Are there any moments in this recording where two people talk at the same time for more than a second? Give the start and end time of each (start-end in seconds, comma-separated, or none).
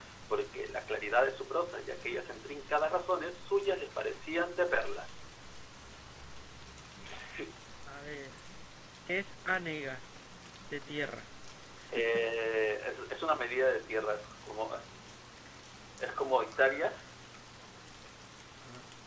none